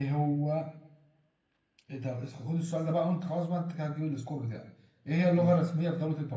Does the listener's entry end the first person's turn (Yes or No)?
No